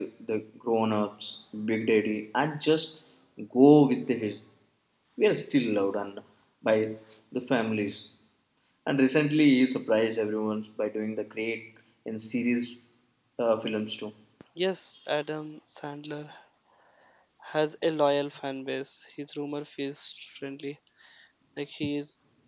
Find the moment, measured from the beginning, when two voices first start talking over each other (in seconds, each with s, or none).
none